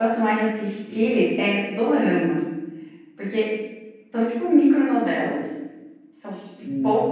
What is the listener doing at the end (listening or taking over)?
listening